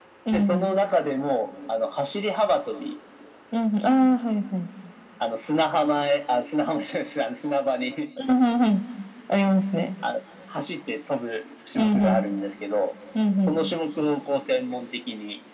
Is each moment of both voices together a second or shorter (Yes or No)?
Yes